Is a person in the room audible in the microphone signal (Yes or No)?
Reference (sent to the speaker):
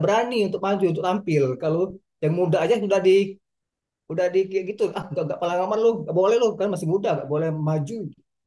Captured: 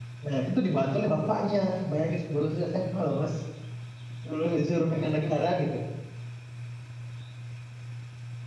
Yes